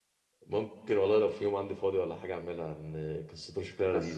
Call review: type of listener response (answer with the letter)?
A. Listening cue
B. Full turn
A